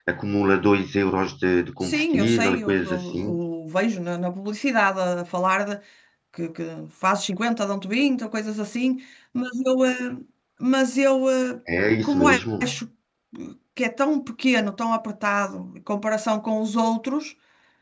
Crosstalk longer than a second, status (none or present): present